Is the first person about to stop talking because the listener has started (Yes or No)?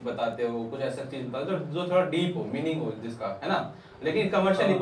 No